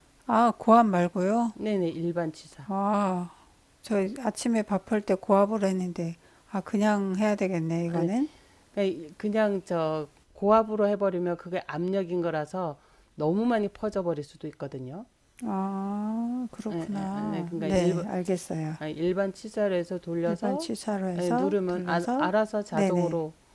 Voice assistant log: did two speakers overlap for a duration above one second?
Yes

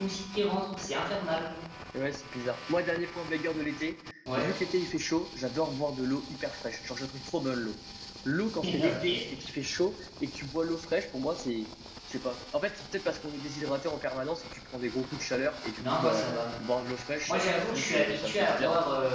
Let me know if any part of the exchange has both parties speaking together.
Yes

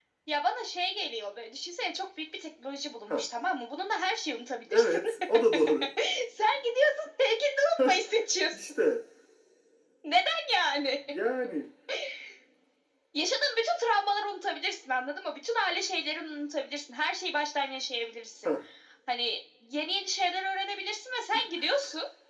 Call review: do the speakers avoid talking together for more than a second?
Yes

